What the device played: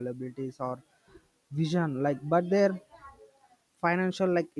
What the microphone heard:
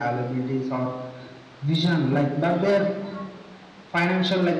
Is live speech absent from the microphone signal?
Yes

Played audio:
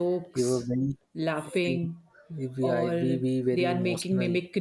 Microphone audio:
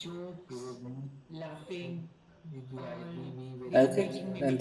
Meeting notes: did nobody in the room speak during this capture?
No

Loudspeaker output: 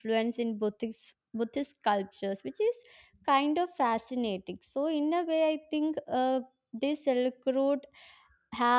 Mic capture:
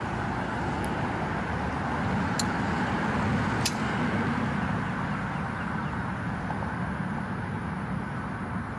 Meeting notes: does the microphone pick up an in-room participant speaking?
No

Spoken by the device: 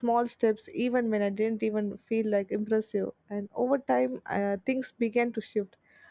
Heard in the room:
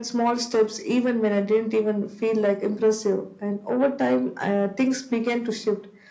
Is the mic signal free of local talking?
Yes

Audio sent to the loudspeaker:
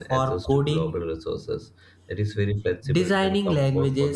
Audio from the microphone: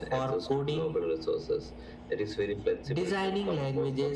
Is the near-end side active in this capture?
No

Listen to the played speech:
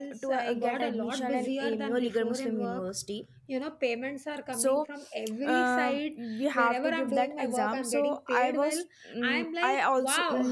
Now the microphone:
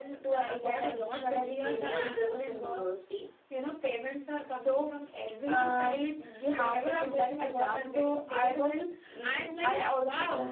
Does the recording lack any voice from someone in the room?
No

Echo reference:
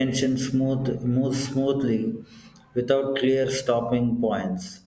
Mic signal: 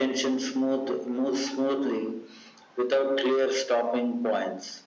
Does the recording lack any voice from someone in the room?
Yes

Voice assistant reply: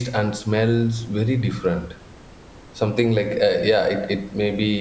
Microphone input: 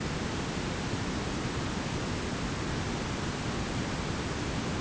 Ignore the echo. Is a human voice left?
No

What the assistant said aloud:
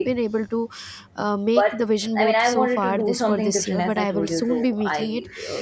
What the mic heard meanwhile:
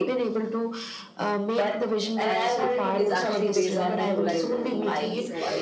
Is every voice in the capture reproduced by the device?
No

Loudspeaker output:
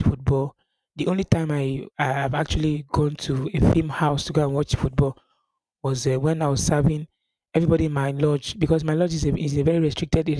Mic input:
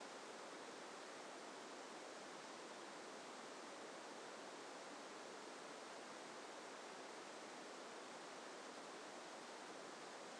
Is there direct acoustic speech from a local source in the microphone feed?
No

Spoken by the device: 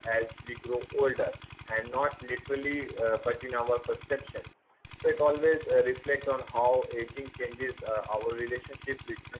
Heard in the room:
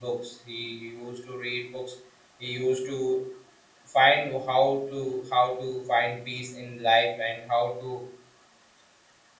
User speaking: Yes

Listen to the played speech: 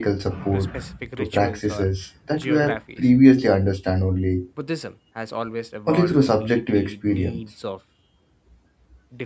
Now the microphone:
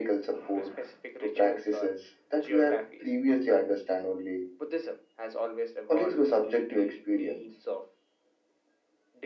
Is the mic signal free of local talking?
Yes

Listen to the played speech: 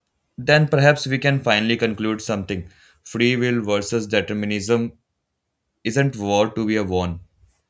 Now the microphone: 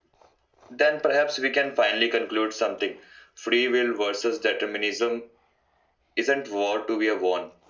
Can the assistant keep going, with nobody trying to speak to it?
Yes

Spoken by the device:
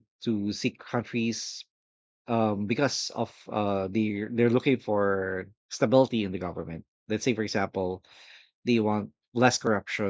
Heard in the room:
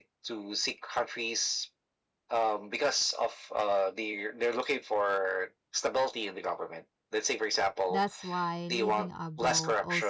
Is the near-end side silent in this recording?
No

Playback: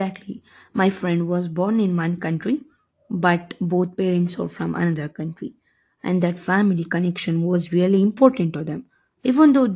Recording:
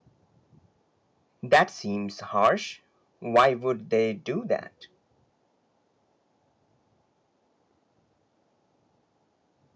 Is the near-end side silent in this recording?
No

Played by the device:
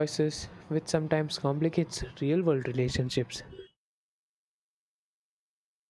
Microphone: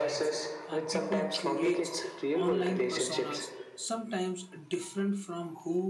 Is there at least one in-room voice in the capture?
Yes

